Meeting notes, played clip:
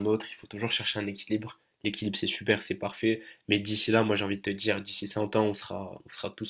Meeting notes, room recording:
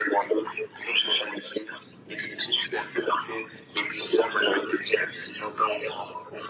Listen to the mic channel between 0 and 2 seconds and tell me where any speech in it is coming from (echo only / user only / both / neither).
echo only